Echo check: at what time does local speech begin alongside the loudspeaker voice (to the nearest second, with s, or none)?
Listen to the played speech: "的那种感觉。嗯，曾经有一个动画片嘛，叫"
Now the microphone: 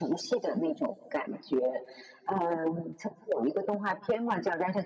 none